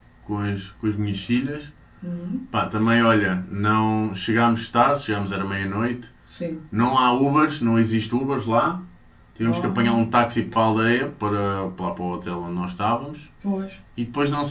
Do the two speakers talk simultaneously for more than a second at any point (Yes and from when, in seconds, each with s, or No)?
No